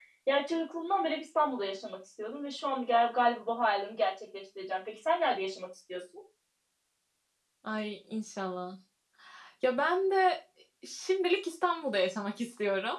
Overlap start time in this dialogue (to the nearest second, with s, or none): none